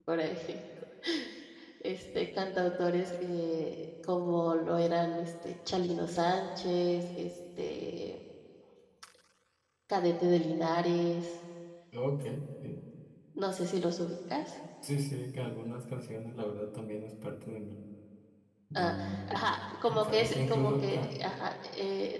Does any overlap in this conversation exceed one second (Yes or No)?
Yes